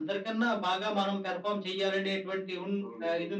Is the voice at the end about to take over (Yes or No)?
No